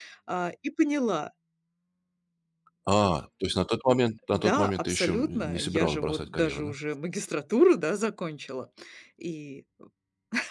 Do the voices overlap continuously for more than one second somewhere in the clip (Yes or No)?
Yes